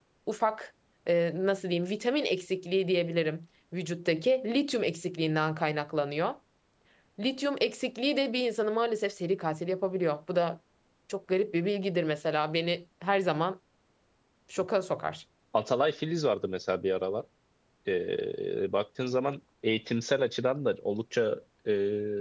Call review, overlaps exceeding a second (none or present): none